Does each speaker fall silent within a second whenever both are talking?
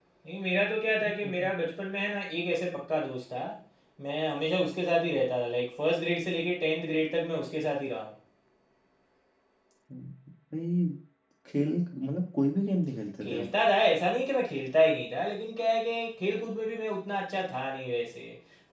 Yes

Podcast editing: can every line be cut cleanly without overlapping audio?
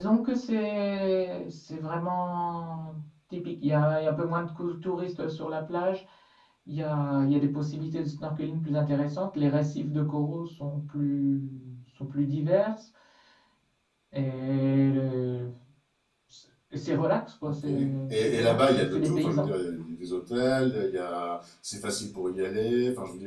No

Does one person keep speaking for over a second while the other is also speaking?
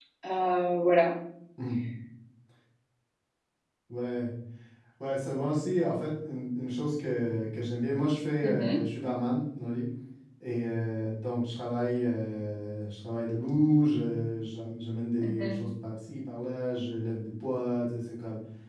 No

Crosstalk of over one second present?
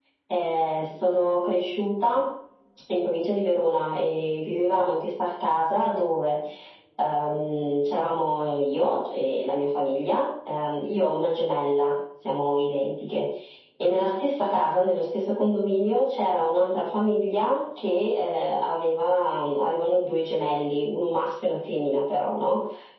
No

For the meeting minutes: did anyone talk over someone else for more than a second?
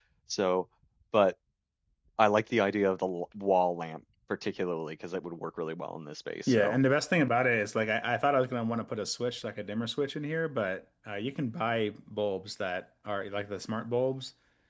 No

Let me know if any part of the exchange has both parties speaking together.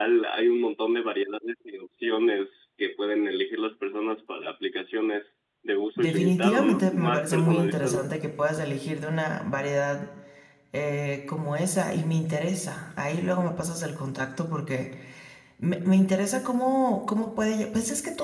Yes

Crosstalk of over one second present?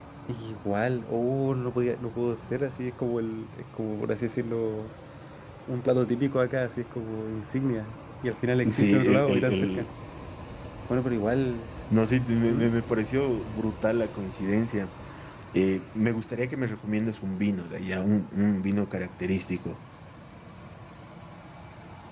Yes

